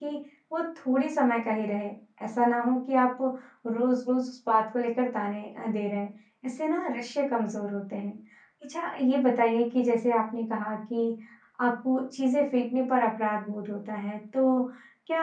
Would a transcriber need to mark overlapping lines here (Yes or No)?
No